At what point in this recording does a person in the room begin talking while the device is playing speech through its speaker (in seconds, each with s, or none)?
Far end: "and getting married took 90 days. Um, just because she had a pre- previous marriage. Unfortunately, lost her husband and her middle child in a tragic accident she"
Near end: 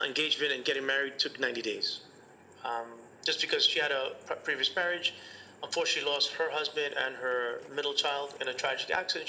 none